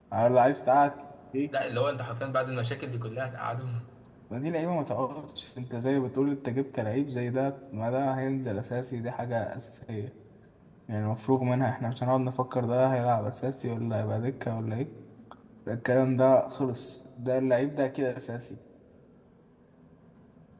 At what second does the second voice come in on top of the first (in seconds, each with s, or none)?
none